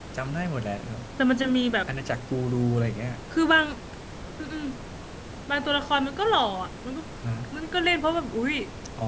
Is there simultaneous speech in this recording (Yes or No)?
No